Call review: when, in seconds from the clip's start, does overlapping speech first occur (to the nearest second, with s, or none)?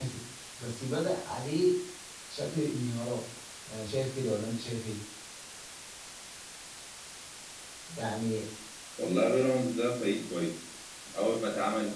none